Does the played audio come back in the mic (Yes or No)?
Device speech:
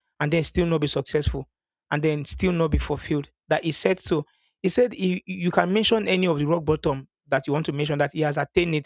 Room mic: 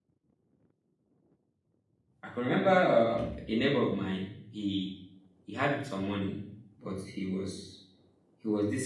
No